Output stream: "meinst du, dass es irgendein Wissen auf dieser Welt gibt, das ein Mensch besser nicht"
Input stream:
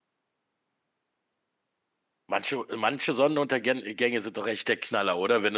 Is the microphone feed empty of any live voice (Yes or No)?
No